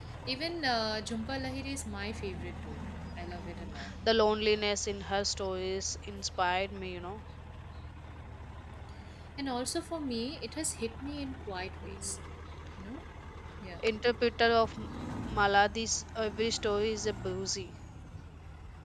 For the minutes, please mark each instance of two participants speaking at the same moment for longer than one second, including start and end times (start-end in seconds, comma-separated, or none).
none